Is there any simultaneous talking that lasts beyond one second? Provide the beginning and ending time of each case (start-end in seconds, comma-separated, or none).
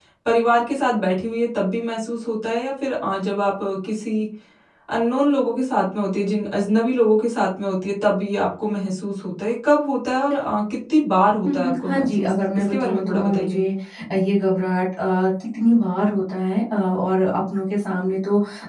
11.4-13.6